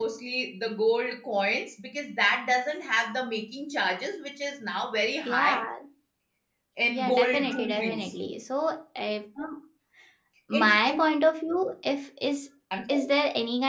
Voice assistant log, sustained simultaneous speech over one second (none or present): present